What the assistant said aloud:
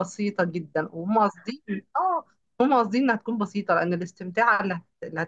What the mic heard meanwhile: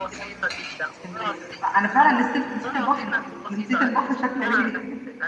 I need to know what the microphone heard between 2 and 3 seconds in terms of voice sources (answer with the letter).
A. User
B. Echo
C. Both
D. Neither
C